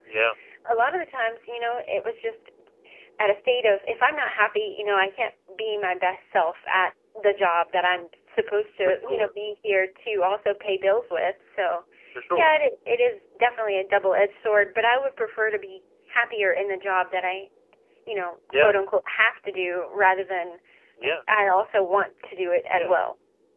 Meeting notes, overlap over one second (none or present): none